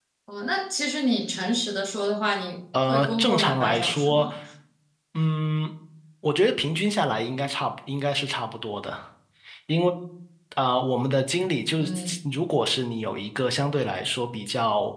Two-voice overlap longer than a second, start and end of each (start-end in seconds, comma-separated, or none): 2.9-4.3